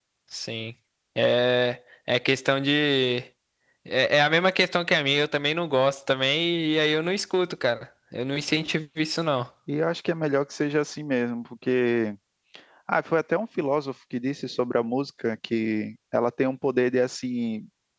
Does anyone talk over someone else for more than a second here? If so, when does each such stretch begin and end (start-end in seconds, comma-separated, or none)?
none